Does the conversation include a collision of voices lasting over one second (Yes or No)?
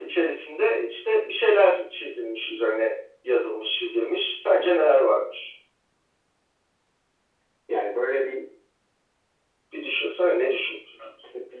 No